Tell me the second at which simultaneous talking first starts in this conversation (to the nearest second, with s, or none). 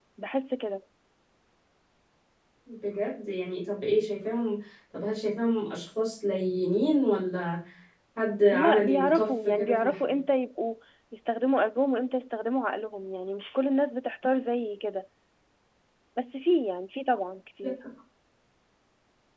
8 s